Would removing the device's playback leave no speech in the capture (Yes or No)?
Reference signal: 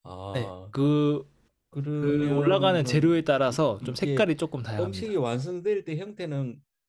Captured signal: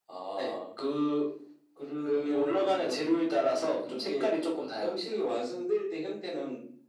Yes